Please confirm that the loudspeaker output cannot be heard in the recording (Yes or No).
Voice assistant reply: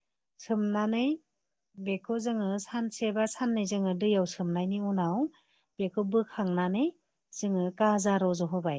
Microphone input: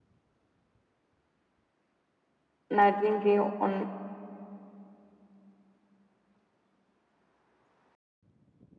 Yes